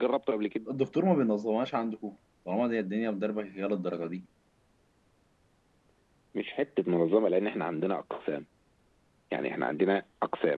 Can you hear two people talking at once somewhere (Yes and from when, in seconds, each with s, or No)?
No